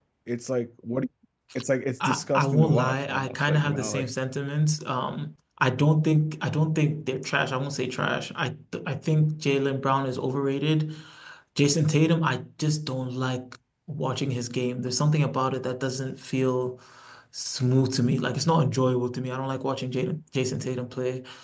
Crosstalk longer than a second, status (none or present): present